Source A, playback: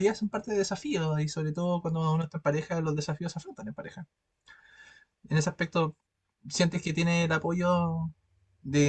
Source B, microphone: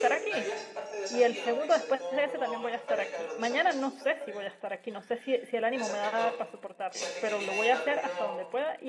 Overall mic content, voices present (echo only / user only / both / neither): both